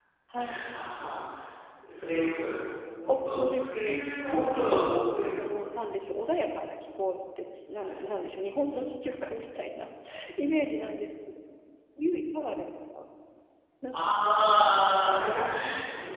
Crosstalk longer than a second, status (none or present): present